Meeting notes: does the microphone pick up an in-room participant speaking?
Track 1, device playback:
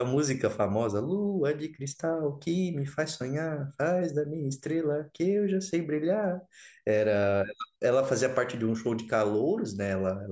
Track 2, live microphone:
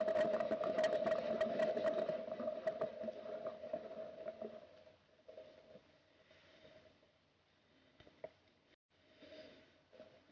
No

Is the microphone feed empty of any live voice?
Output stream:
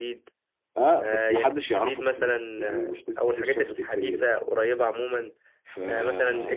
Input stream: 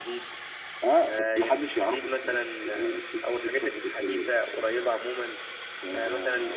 Yes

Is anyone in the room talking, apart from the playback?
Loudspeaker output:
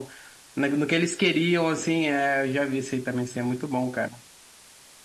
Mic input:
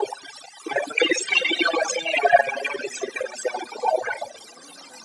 No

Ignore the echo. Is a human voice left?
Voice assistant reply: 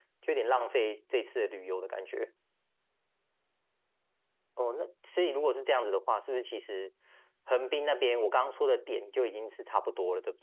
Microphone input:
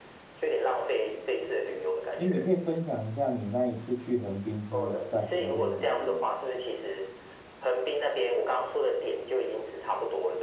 Yes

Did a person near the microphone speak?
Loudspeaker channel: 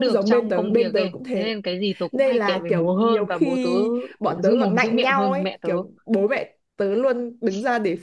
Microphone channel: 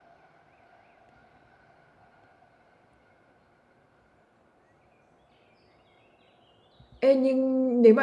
Yes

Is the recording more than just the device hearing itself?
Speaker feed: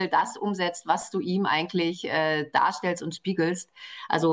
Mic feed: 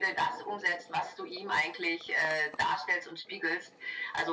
No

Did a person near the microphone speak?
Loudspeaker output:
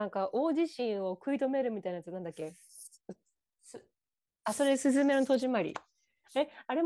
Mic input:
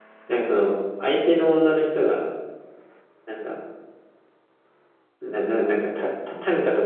Yes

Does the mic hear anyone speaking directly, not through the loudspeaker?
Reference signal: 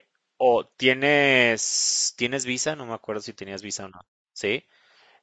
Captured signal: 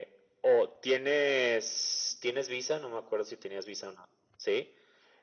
No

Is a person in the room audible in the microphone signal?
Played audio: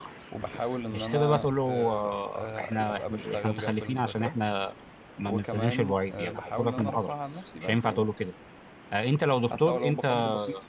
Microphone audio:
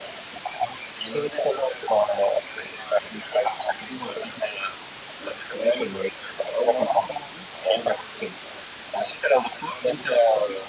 No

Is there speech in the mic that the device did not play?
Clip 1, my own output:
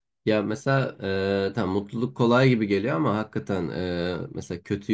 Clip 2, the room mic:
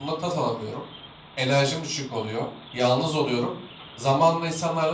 Yes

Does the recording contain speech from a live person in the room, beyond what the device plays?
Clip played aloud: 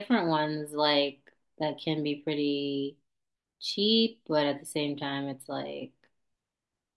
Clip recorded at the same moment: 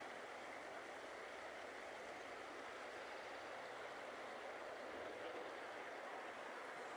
No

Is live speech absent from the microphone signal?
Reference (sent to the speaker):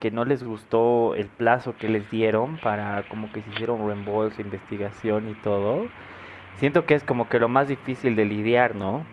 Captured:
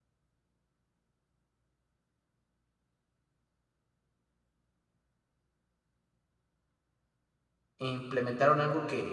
No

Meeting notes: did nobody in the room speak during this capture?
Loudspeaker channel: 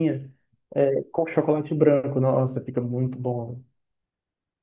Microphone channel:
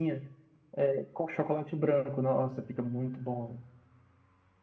Yes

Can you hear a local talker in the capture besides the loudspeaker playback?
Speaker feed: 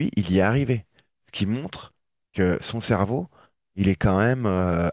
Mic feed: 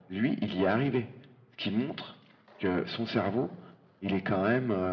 No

